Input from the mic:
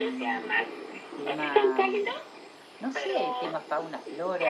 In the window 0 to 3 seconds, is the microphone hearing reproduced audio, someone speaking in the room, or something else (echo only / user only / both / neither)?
both